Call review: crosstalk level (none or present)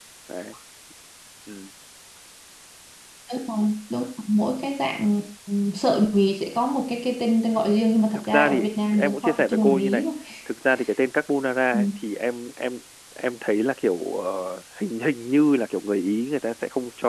present